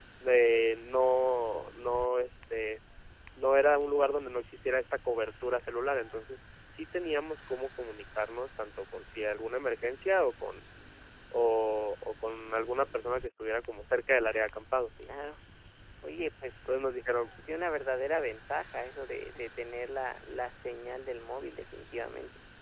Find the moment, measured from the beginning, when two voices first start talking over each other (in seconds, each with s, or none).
none